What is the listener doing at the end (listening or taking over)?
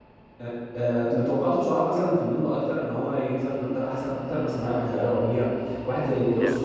taking over